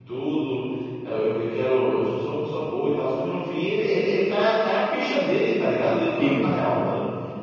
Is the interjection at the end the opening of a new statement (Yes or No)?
No